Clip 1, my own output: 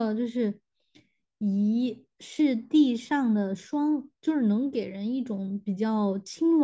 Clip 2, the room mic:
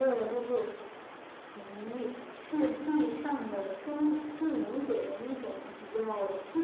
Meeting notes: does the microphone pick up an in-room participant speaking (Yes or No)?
No